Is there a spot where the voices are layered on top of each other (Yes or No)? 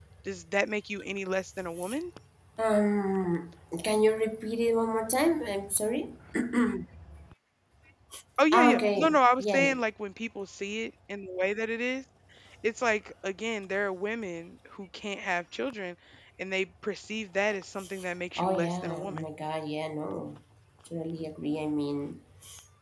Yes